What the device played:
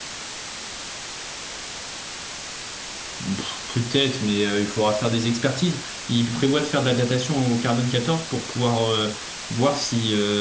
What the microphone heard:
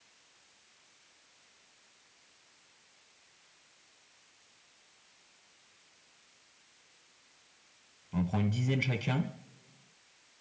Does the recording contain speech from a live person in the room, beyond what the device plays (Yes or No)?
Yes